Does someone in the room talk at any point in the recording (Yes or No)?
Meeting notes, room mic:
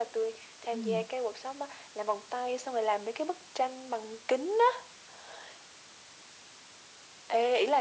Yes